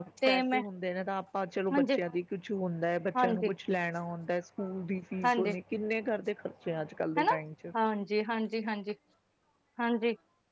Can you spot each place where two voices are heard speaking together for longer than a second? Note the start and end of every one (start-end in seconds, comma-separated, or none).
none